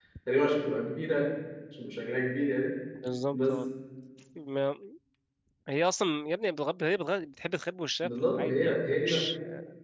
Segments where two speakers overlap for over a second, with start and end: 8.0-9.3

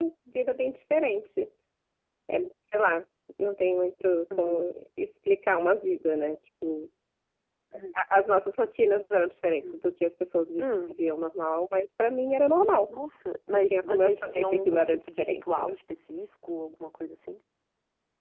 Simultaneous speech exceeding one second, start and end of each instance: 13.5-15.7

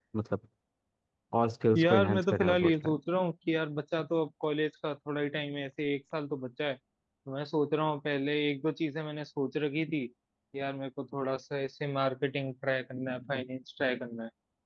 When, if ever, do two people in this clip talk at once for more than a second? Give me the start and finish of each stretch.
1.8-3.0

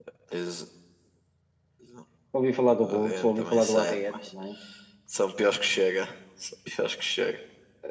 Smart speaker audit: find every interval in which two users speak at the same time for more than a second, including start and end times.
2.7-4.3

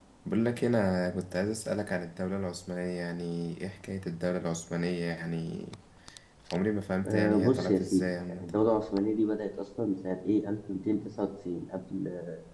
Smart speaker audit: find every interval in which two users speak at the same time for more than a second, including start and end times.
7.0-8.5

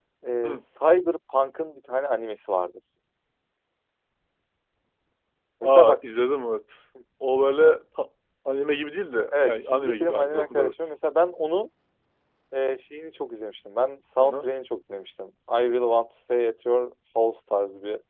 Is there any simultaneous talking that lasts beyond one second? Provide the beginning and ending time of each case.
9.3-10.7

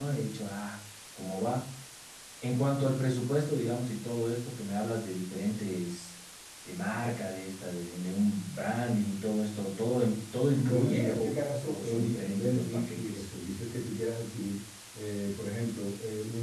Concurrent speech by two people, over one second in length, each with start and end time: 10.6-13.2

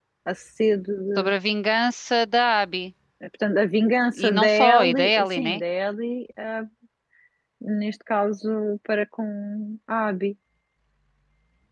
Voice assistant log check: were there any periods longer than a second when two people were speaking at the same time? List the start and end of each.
4.2-5.6

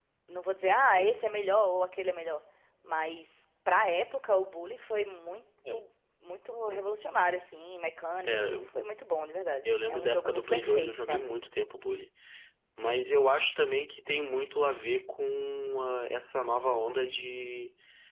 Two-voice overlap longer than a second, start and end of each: 9.7-11.3

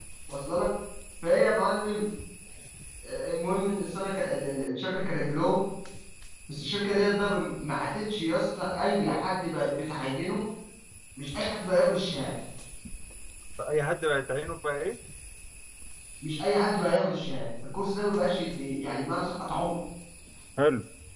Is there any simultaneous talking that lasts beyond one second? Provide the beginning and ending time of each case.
none

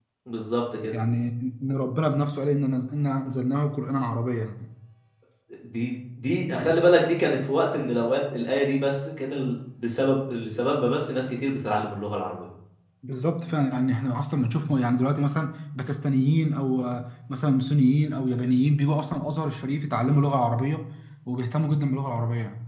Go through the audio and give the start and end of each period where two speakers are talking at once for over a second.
none

